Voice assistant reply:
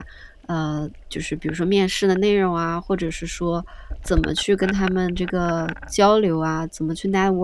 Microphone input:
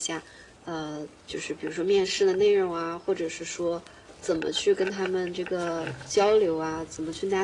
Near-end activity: present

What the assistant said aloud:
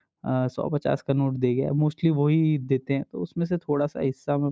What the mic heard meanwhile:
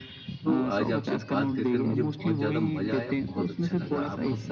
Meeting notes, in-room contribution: present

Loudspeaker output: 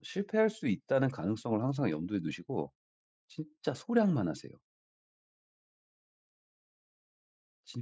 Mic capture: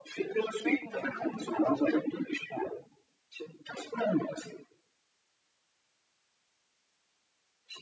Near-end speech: present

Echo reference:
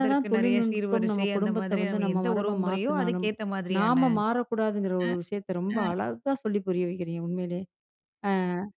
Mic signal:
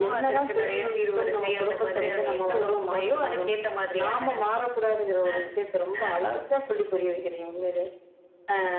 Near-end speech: none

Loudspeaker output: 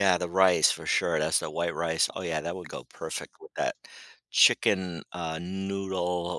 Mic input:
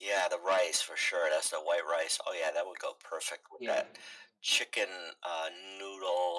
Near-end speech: present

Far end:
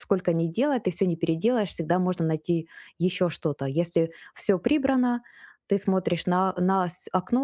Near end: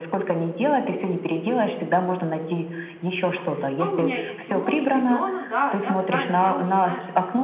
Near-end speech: present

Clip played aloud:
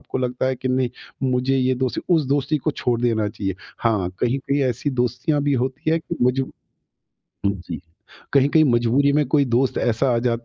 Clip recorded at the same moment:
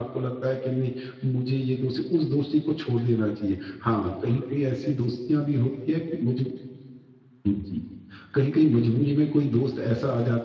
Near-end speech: none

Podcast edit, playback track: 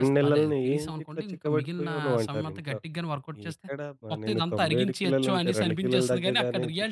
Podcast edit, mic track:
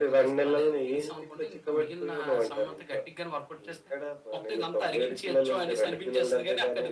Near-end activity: none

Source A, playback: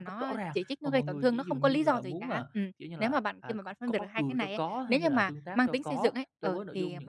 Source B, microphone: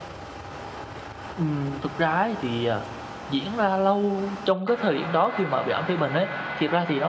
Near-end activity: present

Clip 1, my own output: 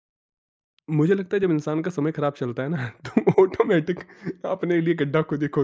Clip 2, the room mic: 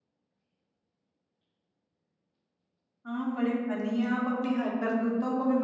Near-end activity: present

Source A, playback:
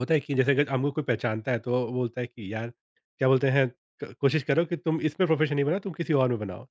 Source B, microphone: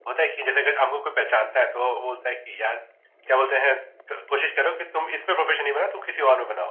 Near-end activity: none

